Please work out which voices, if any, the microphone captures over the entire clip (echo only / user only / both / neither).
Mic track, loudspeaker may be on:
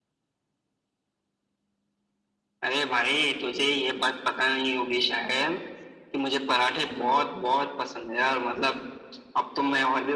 echo only